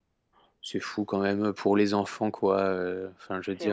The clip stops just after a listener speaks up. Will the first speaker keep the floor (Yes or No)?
Yes